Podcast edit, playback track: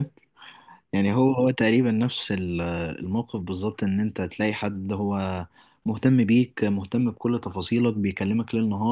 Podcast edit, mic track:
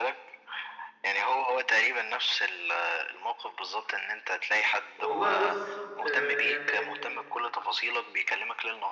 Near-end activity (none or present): present